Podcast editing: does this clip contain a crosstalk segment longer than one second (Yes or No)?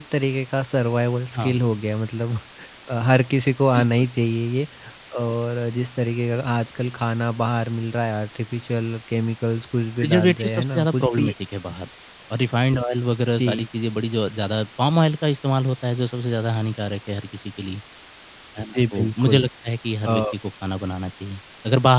Yes